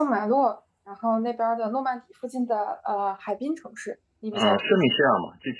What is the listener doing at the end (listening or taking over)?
taking over